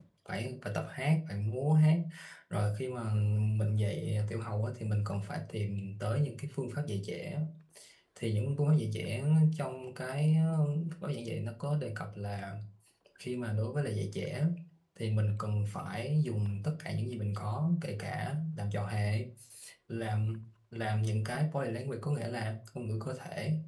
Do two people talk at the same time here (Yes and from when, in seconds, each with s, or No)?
No